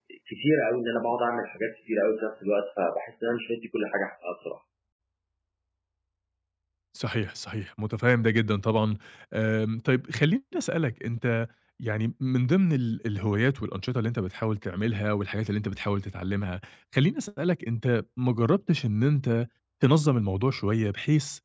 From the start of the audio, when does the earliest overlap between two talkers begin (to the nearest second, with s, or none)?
none